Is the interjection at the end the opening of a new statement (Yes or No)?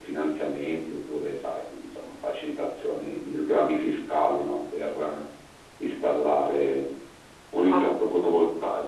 No